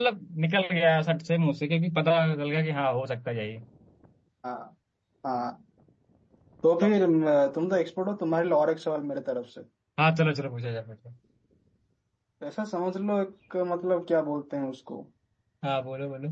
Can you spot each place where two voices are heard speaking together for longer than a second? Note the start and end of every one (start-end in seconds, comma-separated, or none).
none